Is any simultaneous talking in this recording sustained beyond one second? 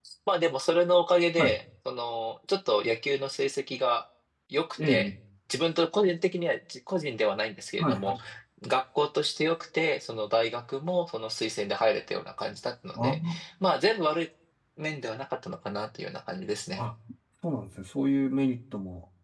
No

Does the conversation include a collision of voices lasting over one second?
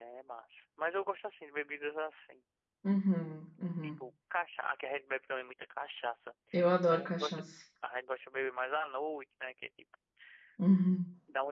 No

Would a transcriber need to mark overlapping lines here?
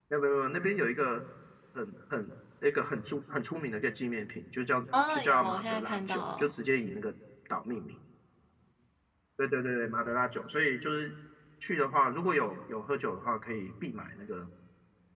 Yes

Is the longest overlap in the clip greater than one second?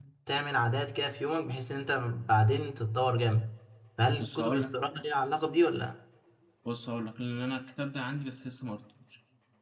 No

